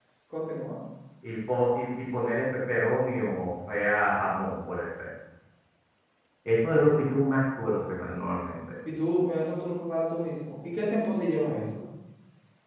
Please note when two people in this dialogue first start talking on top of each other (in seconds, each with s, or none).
none